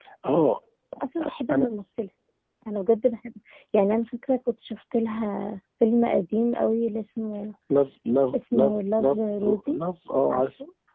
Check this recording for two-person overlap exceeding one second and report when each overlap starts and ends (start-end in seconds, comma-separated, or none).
8.5-9.8